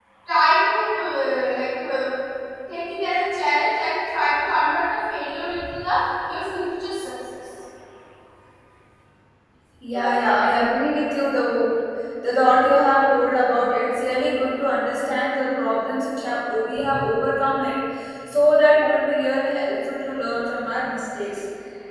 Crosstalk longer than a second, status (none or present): none